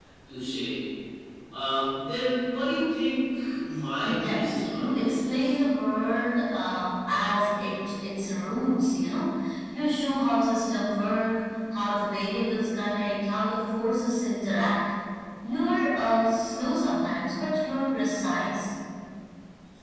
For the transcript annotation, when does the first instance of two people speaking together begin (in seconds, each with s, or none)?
4.0 s